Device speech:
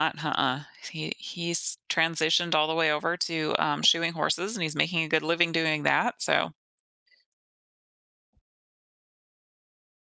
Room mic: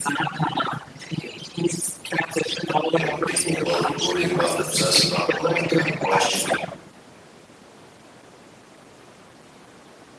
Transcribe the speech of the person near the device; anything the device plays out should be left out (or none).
you know, what people love to worry about and obsess about and all that kind of question.